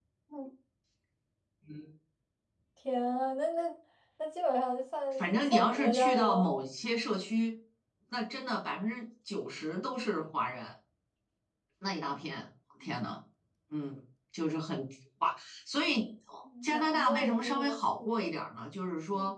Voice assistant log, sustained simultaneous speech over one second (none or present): present